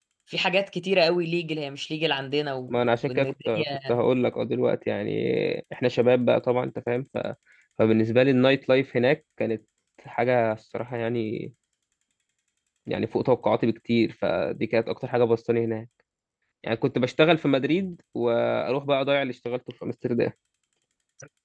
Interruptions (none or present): present